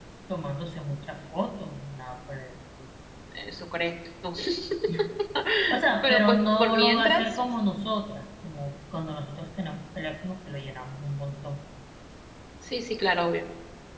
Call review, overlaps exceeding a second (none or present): present